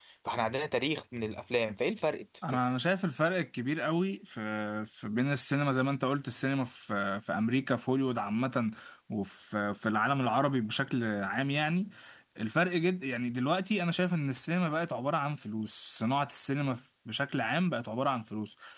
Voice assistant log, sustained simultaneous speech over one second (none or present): none